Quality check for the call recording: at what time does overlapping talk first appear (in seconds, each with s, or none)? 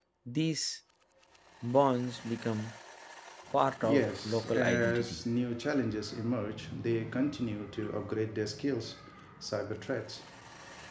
3.8 s